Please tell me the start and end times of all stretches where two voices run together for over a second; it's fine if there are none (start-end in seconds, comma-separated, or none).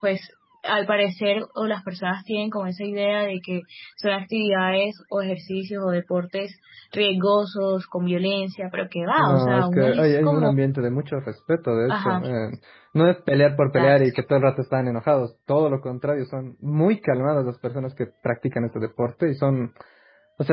9.2-10.5